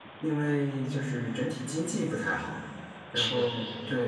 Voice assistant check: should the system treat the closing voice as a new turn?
No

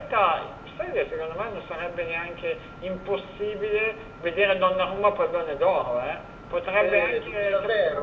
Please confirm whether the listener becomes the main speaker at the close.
Yes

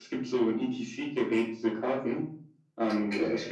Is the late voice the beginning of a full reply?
No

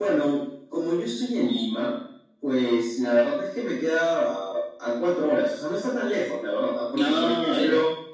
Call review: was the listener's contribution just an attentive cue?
Yes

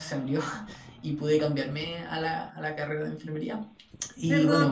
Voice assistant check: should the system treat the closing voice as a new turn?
Yes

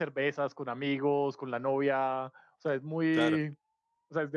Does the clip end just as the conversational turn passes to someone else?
No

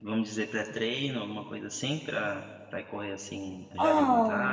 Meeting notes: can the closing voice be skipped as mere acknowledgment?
No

